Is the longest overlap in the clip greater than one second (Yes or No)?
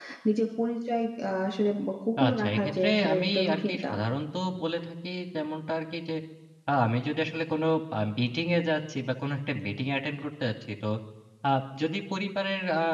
Yes